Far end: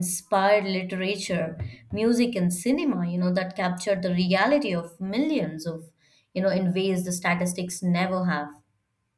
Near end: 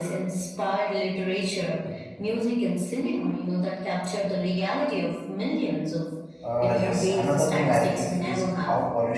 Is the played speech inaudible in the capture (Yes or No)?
No